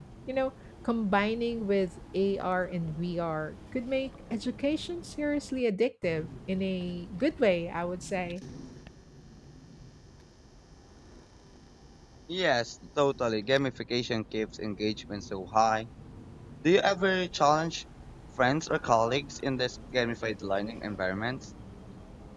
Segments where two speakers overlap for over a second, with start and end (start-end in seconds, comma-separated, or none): none